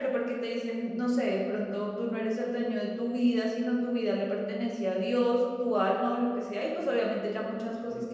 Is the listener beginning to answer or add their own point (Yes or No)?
Yes